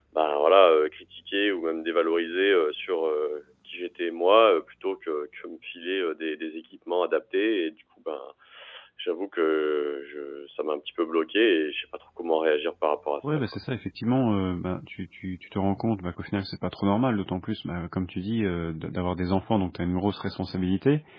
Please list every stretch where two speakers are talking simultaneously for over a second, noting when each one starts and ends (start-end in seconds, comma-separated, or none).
none